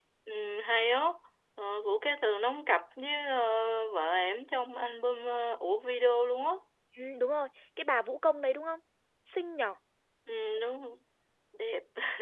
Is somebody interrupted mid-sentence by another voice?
No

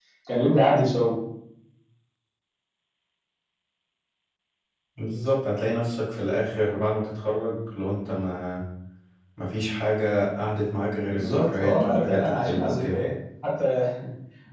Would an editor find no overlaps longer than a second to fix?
No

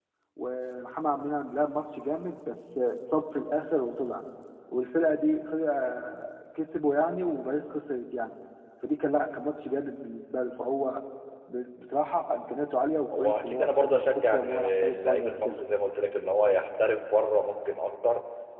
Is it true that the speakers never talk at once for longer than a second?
No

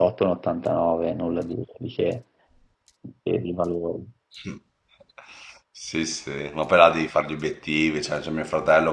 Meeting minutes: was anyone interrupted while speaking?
No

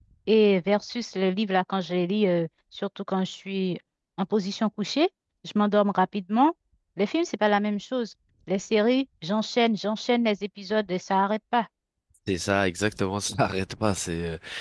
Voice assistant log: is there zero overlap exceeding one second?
Yes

